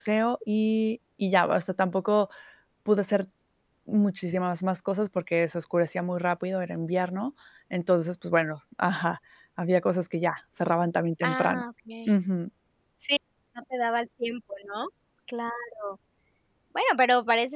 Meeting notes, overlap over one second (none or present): none